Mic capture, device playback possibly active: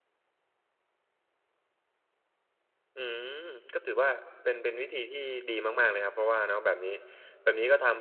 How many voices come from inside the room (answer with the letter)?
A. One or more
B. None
A